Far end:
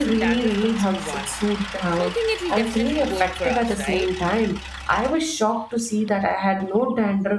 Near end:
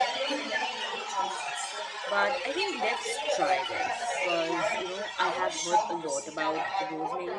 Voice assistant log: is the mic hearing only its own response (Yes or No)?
No